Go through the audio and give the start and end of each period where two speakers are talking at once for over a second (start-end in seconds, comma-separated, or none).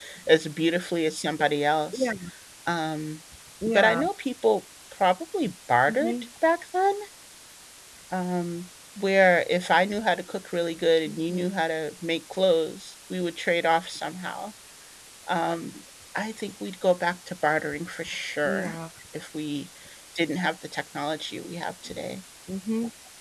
none